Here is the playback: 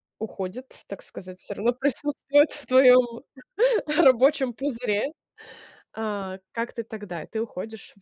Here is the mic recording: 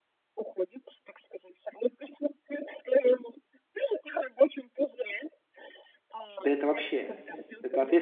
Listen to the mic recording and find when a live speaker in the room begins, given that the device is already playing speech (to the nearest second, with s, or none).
6 s